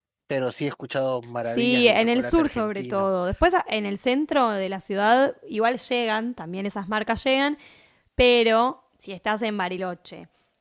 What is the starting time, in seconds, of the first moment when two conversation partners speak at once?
1.4 s

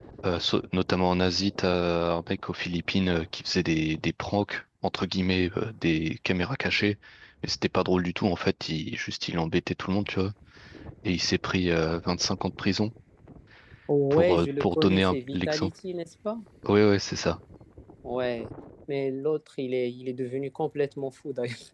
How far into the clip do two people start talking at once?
14.1 s

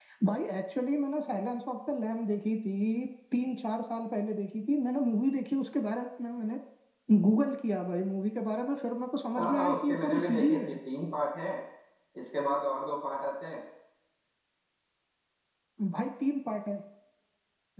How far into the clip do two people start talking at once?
9.3 s

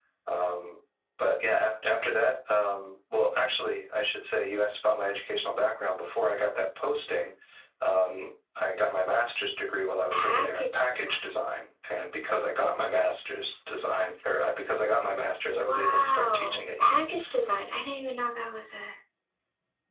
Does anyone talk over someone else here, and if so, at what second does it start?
10.1 s

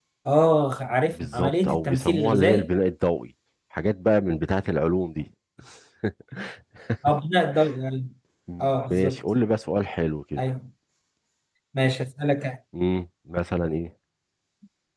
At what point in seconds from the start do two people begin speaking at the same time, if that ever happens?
1.1 s

